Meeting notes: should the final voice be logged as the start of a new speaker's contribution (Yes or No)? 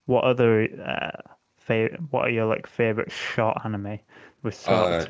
No